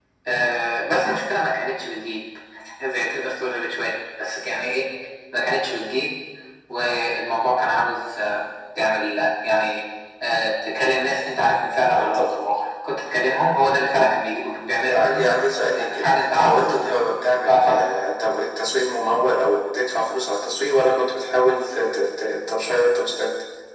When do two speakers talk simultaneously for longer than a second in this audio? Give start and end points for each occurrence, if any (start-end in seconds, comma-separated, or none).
15.8-17.0